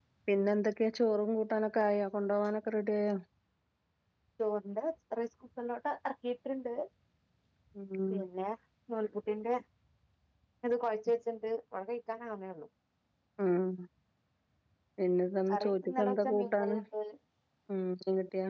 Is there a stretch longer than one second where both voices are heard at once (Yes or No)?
Yes